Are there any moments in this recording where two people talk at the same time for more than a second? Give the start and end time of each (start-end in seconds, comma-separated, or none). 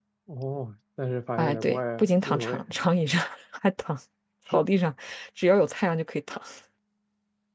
1.4-2.6